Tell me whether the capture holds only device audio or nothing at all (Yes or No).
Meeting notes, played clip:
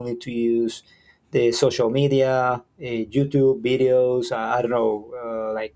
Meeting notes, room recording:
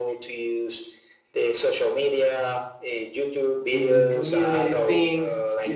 No